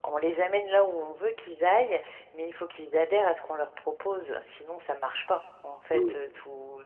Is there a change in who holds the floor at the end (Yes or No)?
No